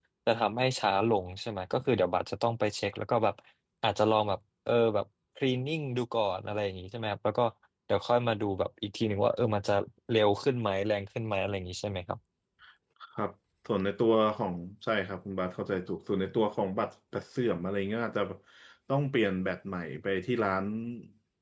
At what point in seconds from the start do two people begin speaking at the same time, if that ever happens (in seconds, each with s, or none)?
none